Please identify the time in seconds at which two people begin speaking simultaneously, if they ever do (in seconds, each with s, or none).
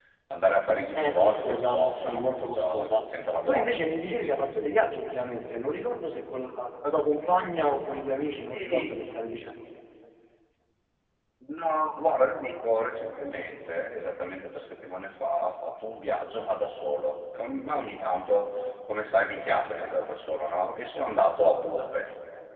0.9 s